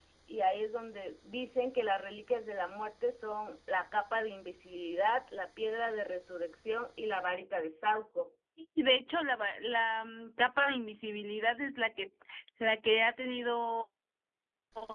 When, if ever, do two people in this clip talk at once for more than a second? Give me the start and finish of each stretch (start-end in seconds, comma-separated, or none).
none